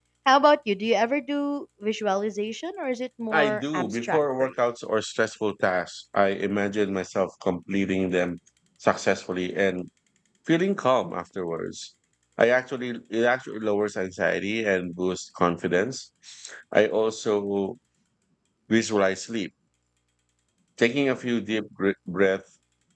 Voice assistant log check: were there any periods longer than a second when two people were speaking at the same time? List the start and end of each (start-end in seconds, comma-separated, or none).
3.3-4.5